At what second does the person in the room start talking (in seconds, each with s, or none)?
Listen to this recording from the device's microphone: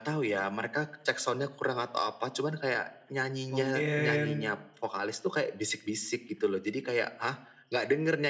3.5 s